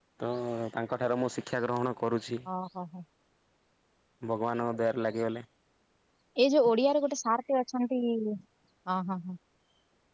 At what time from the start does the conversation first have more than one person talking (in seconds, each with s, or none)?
none